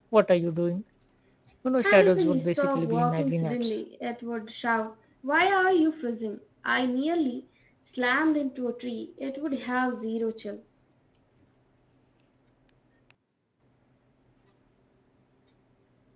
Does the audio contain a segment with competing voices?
Yes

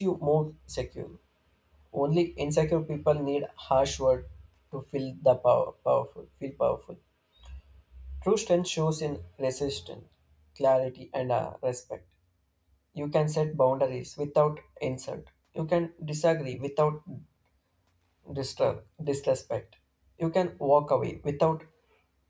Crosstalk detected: No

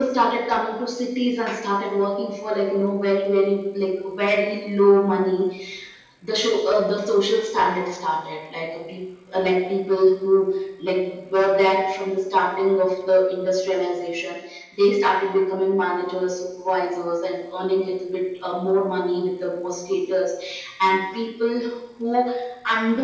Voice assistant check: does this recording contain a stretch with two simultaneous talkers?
No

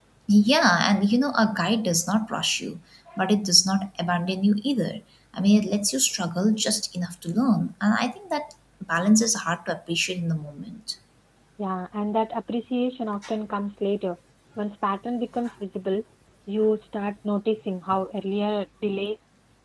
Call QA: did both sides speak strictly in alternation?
Yes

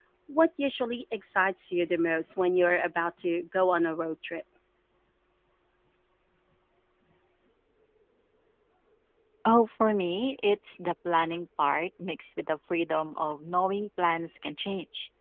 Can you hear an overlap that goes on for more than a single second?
No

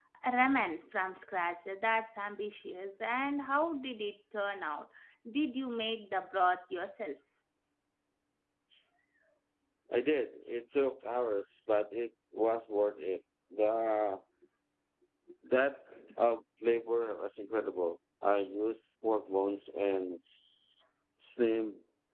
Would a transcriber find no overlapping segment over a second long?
Yes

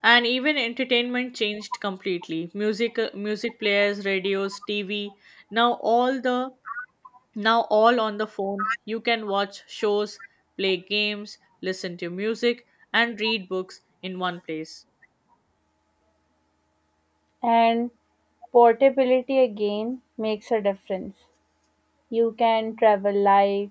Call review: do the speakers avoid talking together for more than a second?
Yes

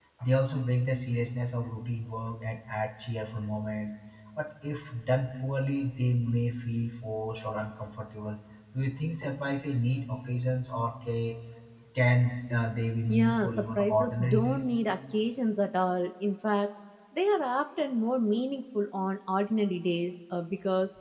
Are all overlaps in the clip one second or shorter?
No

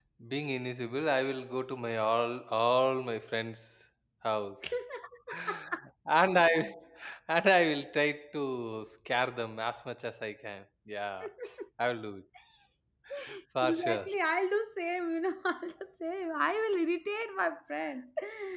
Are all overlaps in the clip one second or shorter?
Yes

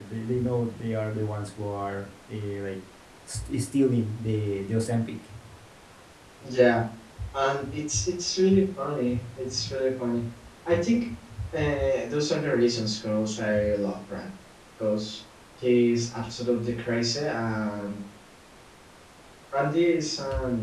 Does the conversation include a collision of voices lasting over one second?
No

